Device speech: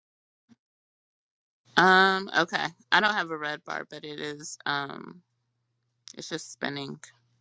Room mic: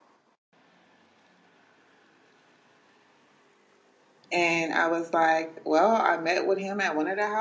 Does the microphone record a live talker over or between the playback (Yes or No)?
Yes